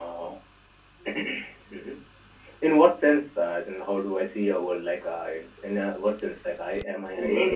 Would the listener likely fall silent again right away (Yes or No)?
No